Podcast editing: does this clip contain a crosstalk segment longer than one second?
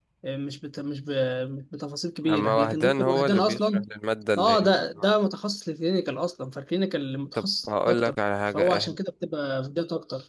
Yes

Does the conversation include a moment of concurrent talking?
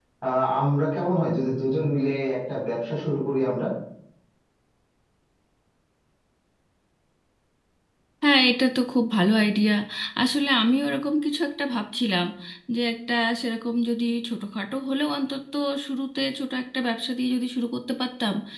No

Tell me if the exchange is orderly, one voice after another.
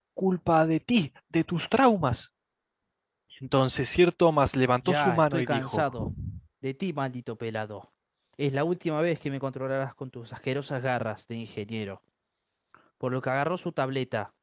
No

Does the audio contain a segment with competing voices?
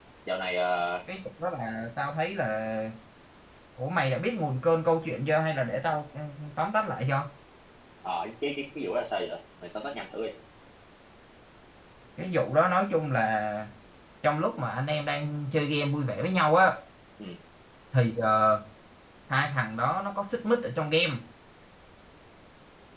No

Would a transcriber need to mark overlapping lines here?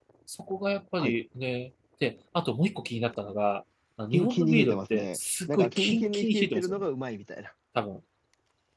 Yes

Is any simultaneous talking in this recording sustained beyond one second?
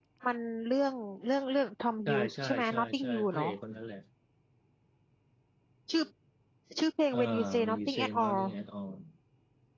Yes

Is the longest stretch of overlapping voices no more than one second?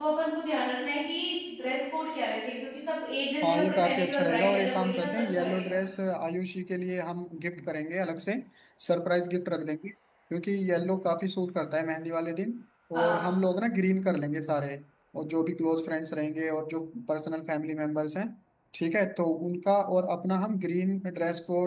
No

